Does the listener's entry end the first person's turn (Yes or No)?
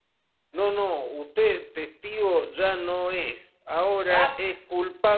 No